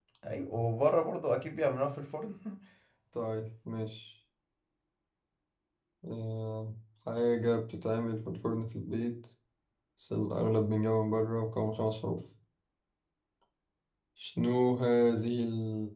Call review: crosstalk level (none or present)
none